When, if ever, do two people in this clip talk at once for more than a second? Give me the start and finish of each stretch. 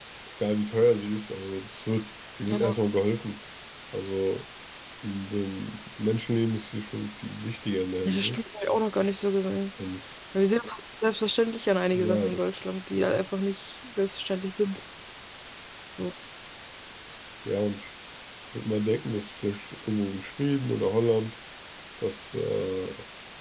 none

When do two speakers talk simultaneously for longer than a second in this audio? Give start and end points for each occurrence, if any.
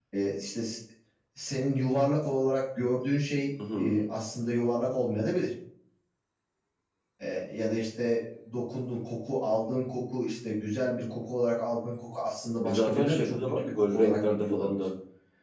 12.6-14.7

